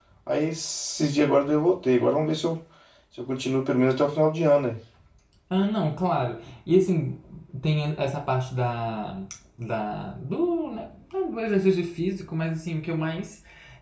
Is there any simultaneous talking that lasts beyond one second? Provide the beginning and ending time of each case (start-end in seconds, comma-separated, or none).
none